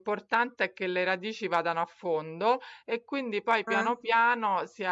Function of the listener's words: listening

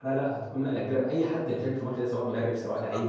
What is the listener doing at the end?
listening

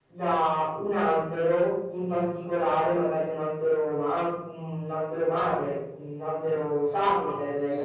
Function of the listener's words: taking over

